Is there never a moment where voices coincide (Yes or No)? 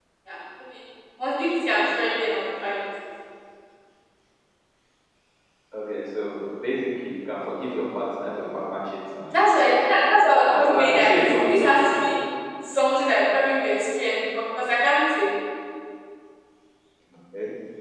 No